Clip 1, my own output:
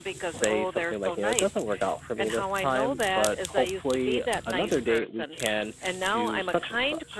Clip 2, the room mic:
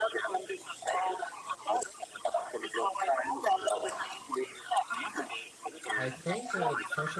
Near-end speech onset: 6.0 s

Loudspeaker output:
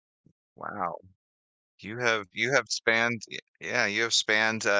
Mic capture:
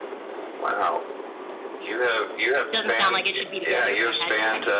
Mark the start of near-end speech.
2.7 s

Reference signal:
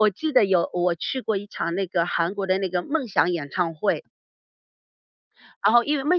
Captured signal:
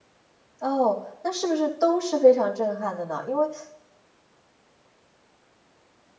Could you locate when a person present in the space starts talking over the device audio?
0.6 s

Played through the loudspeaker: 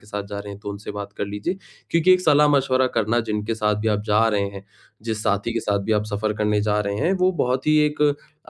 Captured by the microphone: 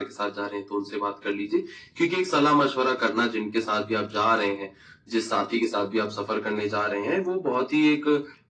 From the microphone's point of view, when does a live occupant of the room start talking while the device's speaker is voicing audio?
none

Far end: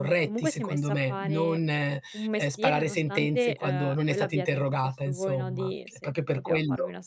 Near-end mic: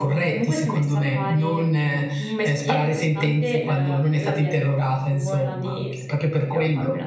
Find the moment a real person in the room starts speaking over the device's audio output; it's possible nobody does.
none

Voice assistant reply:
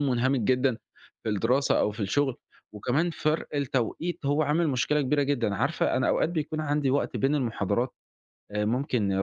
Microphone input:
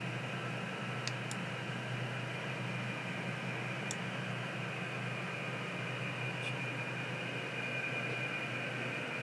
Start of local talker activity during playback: none

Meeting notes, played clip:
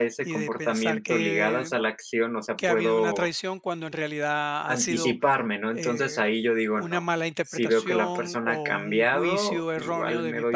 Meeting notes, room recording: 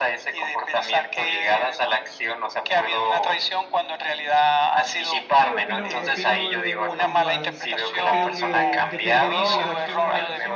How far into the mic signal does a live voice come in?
5.3 s

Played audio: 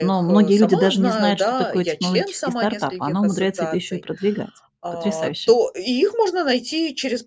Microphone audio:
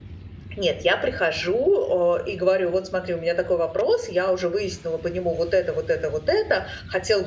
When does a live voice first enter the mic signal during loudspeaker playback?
0.6 s

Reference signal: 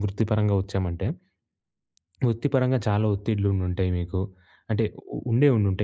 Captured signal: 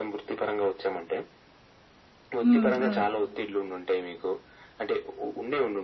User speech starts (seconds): 2.4 s

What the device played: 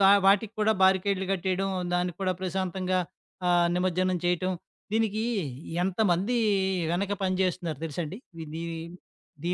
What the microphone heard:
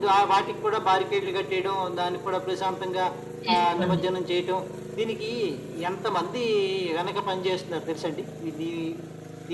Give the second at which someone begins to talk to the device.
3.4 s

